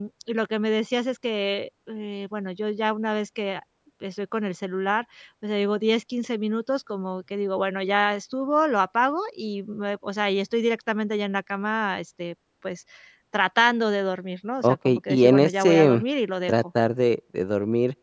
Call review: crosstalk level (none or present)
present